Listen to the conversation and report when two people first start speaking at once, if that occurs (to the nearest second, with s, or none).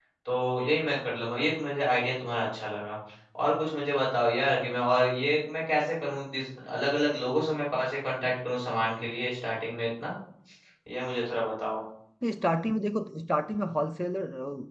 none